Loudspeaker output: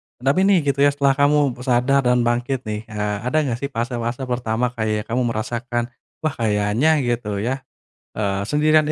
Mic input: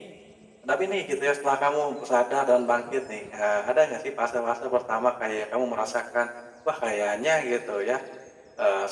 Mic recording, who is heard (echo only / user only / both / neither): echo only